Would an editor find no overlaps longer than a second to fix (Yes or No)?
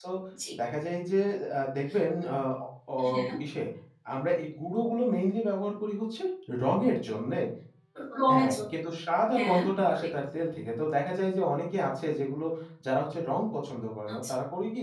Yes